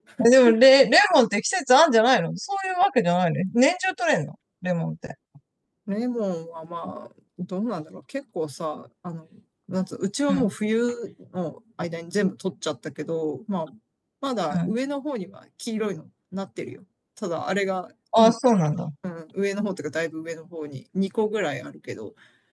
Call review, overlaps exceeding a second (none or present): none